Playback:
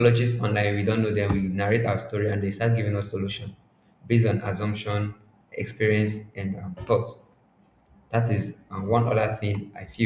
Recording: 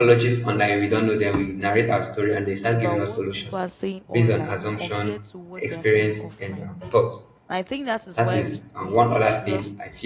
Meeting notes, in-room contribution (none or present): present